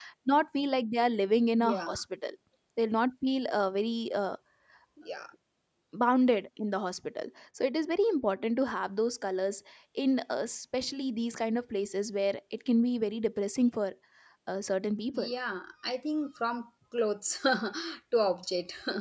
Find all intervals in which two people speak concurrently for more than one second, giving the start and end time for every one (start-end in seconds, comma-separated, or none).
none